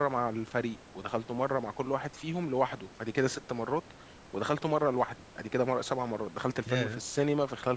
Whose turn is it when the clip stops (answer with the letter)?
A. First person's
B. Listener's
A